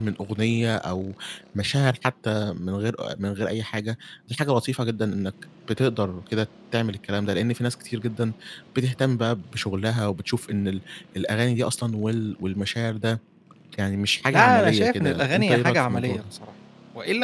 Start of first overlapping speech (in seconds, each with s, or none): 14.3 s